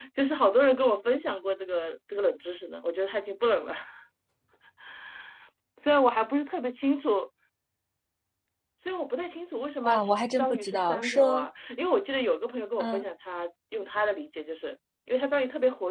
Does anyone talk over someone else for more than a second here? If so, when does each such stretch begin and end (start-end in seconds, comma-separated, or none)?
9.8-11.5